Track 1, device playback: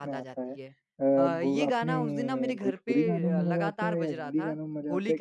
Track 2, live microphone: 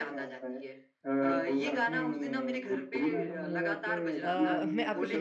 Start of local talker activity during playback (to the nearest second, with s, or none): 4 s